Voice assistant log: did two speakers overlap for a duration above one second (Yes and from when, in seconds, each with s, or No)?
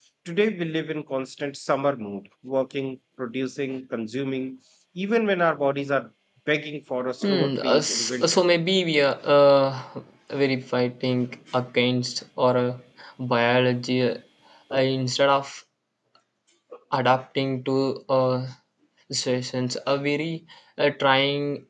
Yes, from 7.2 s